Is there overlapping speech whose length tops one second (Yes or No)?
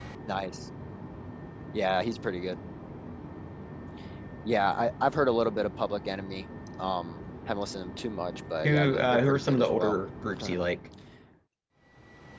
Yes